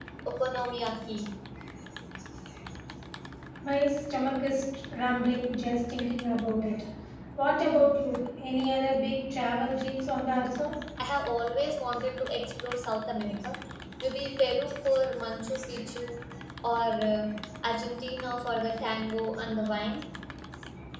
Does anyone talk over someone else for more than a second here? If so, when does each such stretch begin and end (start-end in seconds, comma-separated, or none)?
none